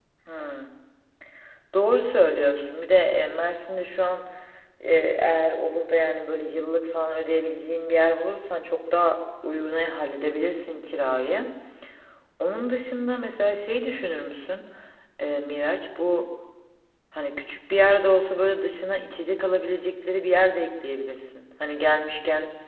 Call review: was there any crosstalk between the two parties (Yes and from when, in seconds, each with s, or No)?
No